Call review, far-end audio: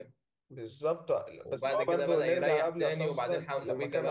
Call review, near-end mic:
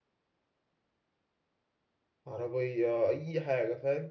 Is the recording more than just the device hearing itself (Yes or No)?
Yes